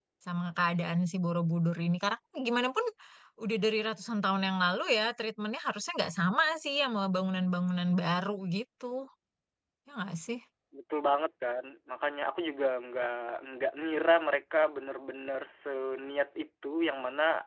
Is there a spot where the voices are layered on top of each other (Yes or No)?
No